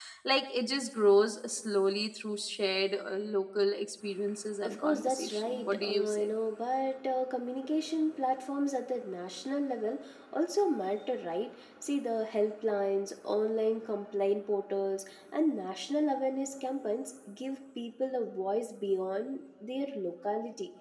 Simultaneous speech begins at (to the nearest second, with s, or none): 5 s